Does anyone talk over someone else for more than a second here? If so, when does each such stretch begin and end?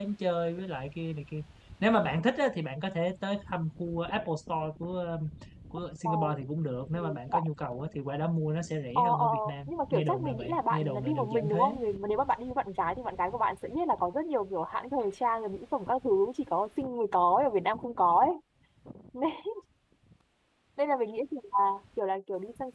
8.9-11.7

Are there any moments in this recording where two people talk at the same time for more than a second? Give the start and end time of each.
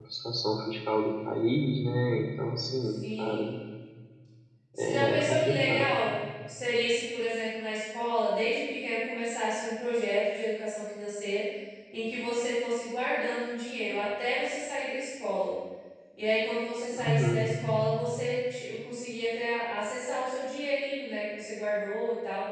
4.8-6.0

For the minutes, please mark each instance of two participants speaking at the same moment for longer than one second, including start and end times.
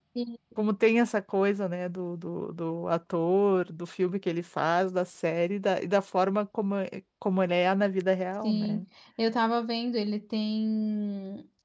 none

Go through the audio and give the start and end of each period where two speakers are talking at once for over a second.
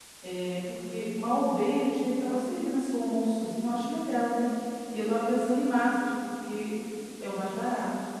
none

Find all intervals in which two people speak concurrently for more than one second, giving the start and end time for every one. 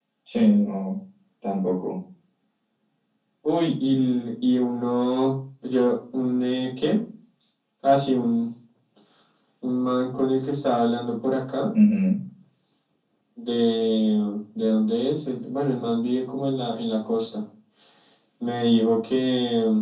none

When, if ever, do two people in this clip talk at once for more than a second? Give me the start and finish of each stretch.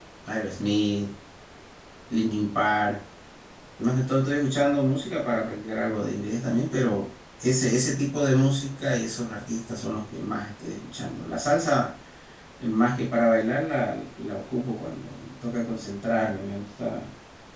none

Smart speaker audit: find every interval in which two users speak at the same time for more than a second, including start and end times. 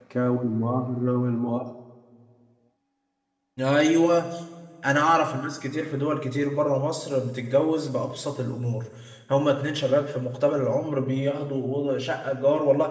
none

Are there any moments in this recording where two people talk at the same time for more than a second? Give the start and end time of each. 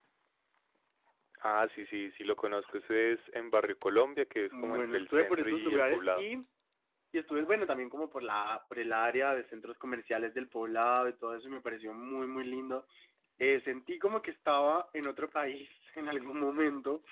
4.5-6.2

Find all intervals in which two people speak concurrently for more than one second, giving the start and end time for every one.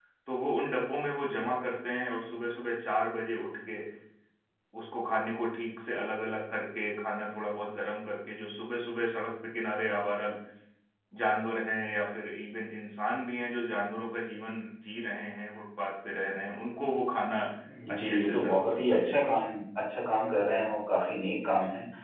17.9-19.2

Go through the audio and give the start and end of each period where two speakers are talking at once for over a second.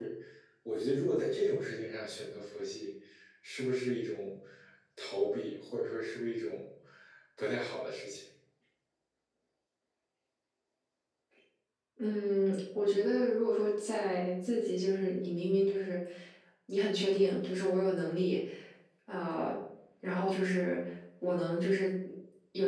none

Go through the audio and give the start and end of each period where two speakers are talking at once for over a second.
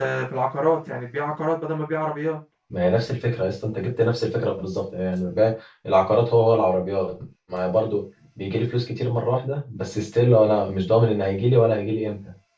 none

